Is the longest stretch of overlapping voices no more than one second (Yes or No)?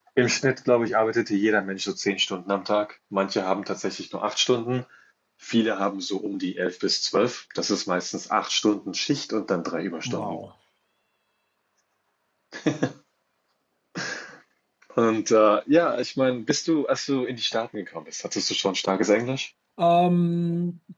Yes